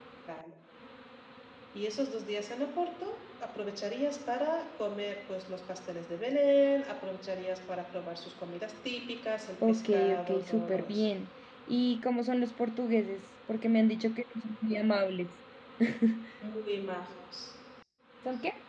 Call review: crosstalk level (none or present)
present